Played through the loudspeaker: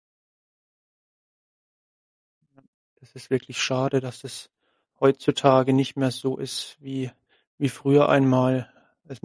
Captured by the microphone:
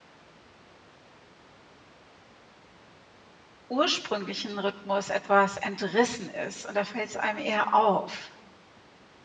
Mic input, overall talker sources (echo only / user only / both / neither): user only